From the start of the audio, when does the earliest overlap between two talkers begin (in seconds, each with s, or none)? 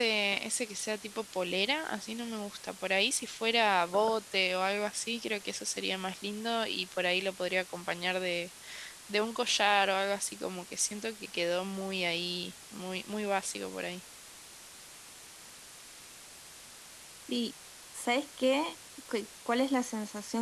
none